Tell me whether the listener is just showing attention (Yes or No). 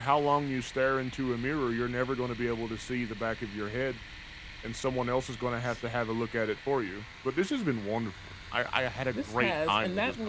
No